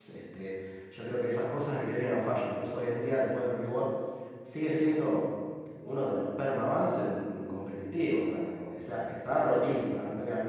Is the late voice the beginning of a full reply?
No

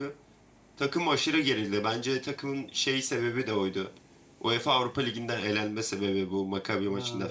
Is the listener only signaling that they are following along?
No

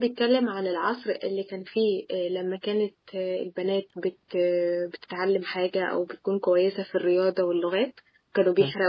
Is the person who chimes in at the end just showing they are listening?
Yes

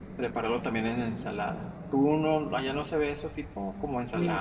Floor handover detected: Yes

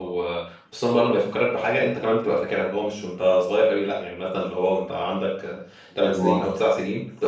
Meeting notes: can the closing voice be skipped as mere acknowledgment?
Yes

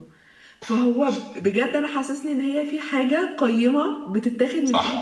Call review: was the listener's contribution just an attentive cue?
Yes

